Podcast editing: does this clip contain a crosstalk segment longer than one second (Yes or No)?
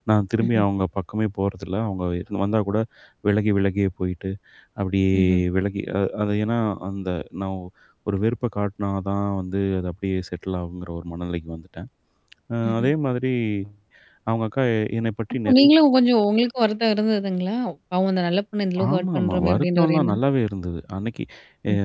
Yes